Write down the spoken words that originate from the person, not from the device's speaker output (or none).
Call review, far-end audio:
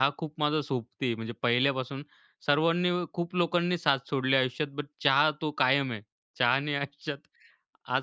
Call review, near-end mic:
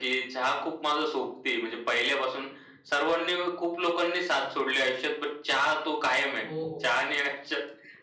हो, हो.